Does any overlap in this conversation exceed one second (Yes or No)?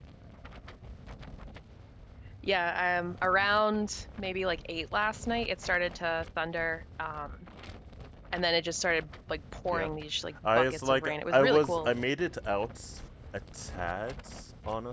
Yes